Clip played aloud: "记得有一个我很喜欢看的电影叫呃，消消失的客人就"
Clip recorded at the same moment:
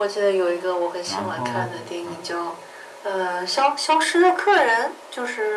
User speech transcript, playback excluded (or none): 然后，呃